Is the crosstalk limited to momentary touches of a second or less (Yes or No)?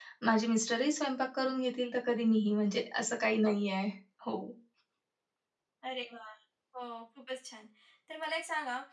Yes